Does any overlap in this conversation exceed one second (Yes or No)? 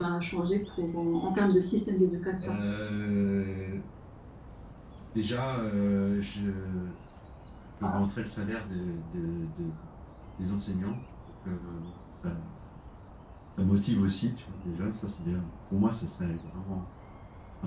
No